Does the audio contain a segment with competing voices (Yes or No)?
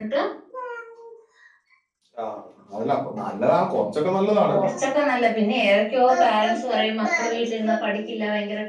No